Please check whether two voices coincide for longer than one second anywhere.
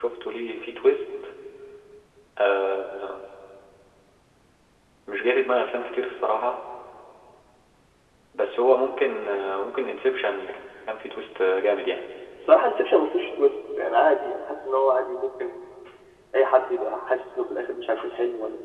No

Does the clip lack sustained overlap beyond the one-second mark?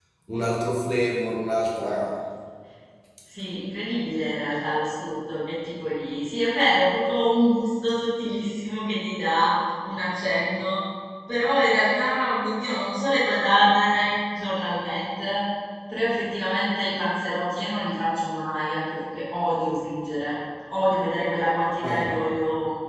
Yes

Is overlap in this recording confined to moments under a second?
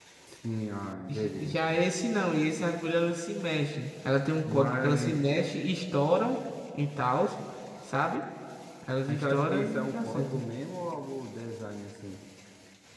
No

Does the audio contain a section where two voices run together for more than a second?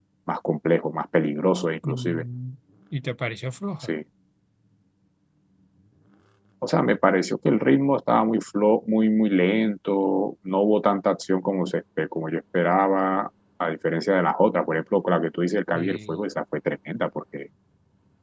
No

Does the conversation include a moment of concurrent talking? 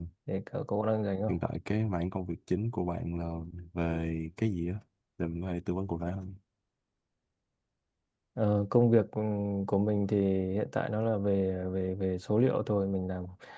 No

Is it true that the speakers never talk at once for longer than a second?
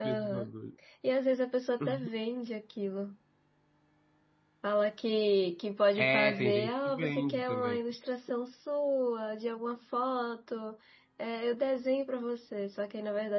No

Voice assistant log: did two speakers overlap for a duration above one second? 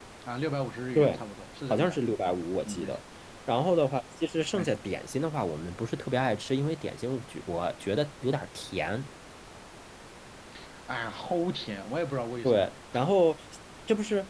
No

